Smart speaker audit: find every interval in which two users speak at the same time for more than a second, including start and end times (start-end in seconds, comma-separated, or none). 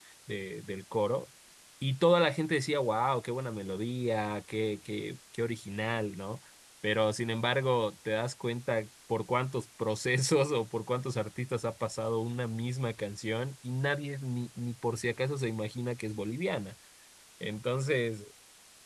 none